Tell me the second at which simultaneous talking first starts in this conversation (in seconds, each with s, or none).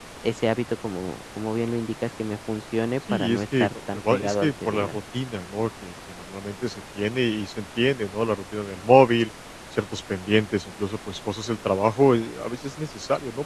3.1 s